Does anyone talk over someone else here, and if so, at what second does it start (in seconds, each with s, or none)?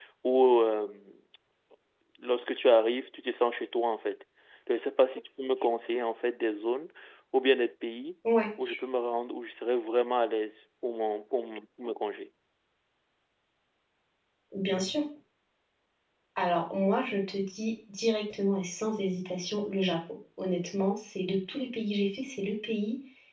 none